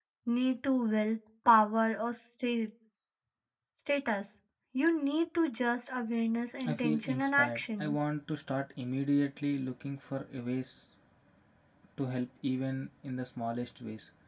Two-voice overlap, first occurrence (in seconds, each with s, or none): 6.6 s